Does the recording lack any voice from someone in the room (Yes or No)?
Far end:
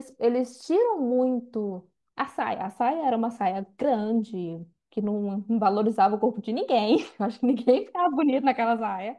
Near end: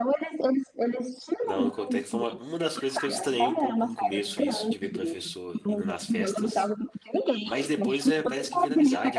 No